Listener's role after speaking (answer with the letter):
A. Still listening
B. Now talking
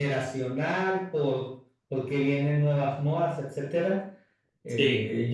A